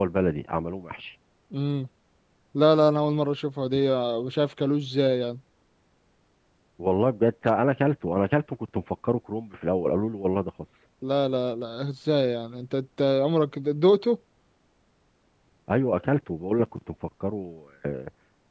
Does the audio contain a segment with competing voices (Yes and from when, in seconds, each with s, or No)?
No